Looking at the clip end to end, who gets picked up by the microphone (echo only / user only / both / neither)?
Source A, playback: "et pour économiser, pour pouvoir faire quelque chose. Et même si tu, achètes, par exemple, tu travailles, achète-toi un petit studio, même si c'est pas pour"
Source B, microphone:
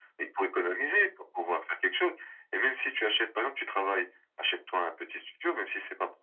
echo only